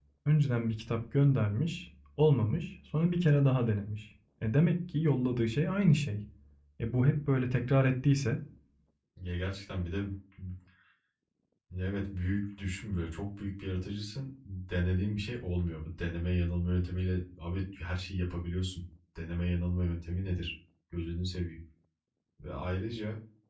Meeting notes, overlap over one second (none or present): none